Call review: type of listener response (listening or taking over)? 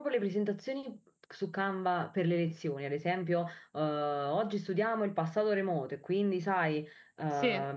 listening